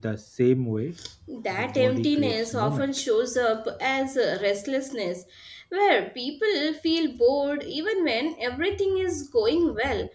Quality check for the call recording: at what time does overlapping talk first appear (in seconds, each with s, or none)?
1.6 s